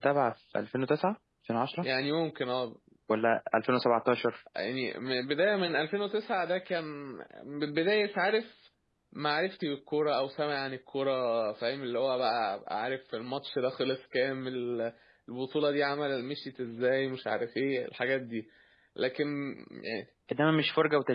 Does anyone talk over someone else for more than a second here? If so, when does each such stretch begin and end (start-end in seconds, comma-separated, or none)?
none